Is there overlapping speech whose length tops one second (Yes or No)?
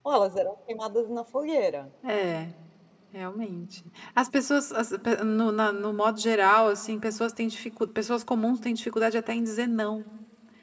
No